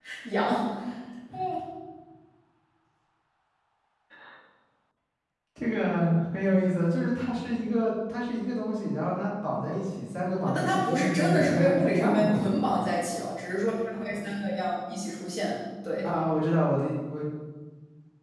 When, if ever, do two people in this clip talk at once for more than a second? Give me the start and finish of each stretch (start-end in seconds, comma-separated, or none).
10.5-12.6